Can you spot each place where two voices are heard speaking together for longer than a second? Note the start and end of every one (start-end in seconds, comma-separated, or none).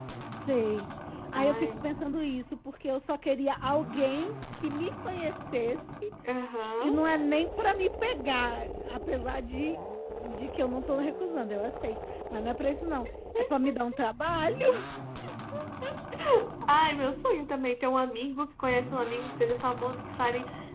none